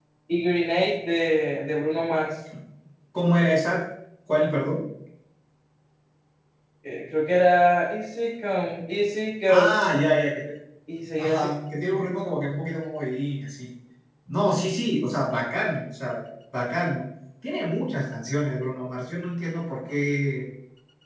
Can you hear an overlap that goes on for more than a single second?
No

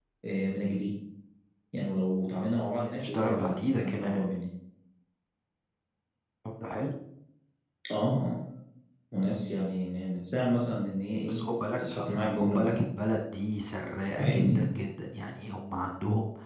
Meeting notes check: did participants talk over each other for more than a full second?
Yes, from 2.6 s

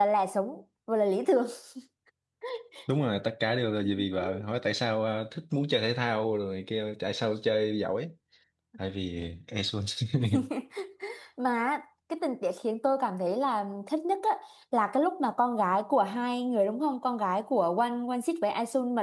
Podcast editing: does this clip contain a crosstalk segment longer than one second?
No

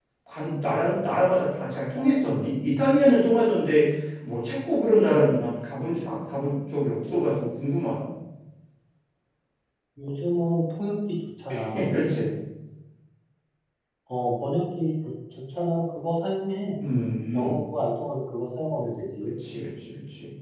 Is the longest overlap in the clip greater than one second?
No

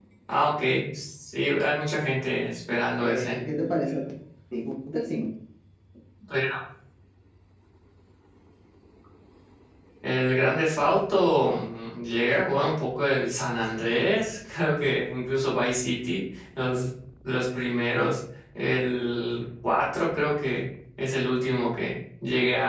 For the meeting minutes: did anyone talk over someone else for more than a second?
No

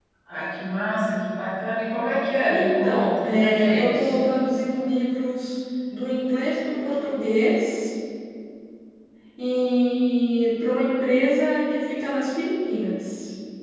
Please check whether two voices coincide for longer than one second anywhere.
Yes, from 2.5 s

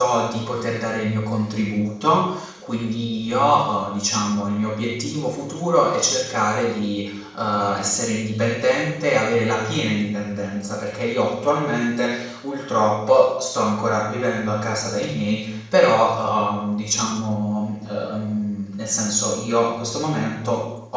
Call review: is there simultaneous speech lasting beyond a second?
No

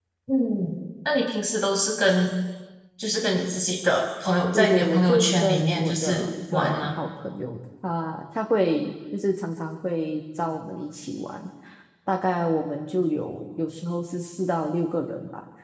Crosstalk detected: Yes, from 4.5 s

